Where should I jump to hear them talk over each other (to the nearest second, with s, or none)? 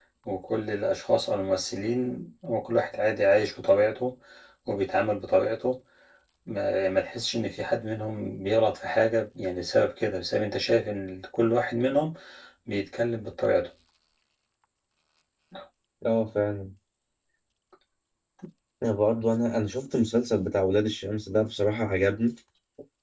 none